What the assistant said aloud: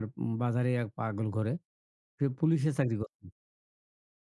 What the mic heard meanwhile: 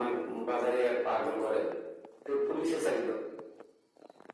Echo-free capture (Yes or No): No